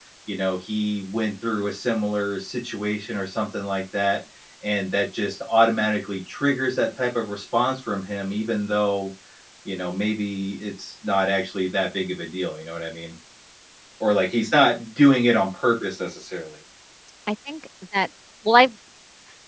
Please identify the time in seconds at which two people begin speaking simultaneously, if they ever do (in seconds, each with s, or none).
none